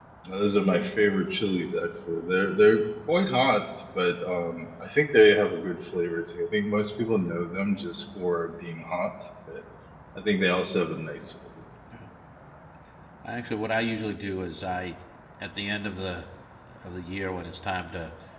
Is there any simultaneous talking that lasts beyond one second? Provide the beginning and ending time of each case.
none

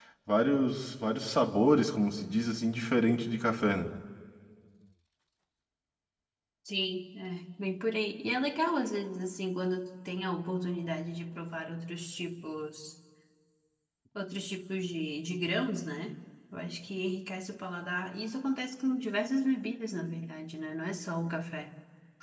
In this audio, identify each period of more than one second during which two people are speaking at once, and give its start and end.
none

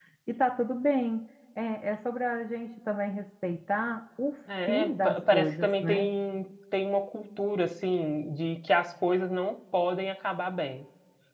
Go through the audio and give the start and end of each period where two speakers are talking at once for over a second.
4.7-6.1

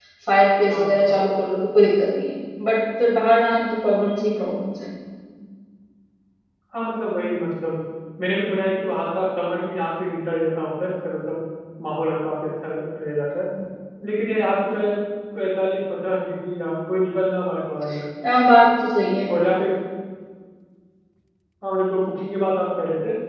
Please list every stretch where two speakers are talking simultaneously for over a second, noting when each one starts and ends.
none

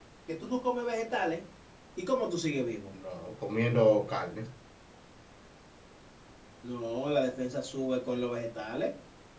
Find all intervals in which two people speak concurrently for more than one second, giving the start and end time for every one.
none

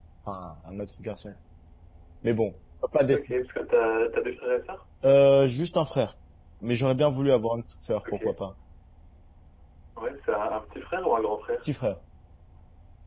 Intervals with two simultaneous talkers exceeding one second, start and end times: none

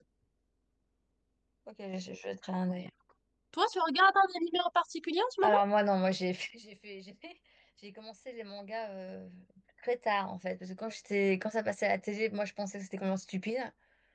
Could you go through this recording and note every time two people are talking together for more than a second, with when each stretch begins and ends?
none

